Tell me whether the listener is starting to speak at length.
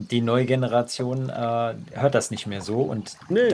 No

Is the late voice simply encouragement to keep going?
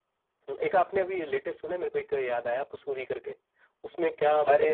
No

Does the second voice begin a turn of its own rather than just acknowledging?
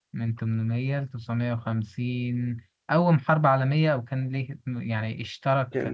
Yes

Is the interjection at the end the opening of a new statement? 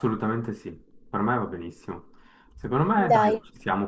No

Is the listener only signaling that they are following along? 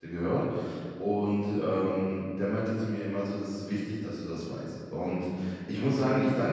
Yes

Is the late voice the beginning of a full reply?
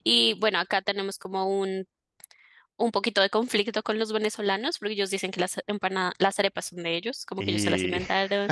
No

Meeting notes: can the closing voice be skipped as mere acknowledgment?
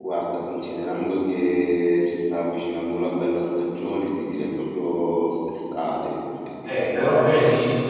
No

